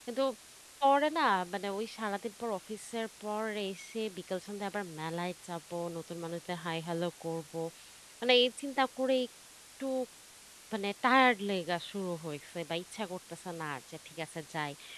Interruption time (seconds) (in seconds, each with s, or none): none